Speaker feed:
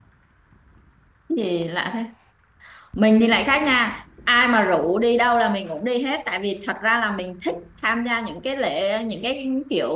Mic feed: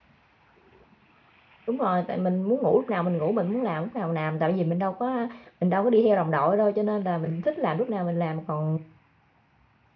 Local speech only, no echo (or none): đúng rồi tại mình muốn ngủ lúc nào mình ngủ mình muốn làm lúc nào mình làm tại vì mình đâu có mình đâu có đi theo đồng đội đâu cho nên là mình thích làm lúc nào mình làm còn